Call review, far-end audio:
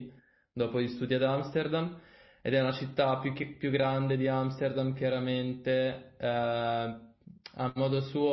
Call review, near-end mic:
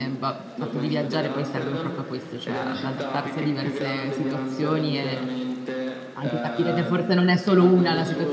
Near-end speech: present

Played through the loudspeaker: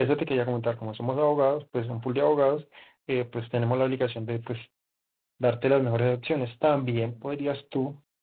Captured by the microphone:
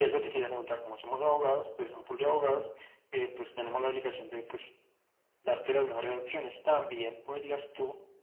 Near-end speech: none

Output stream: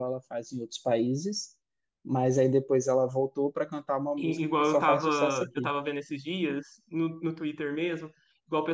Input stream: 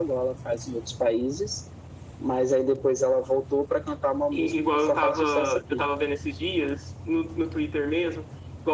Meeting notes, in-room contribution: none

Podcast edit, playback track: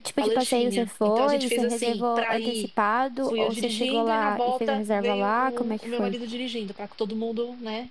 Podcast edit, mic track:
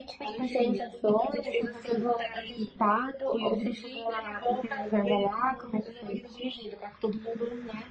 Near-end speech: none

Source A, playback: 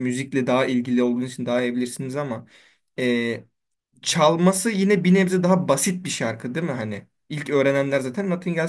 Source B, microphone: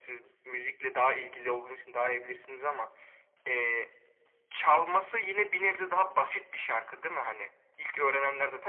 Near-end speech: none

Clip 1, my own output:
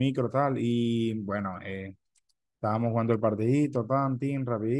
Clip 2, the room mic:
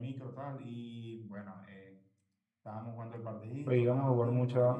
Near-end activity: present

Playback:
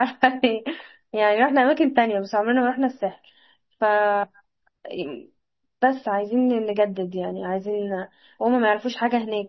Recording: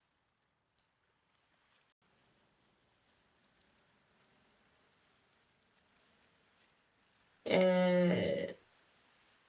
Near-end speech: present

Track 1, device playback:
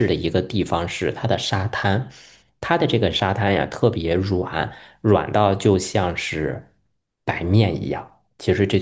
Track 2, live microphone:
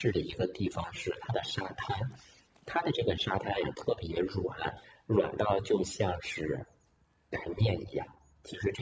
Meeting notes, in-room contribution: none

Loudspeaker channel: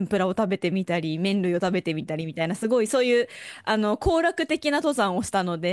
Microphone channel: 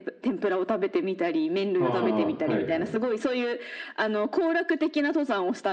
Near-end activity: present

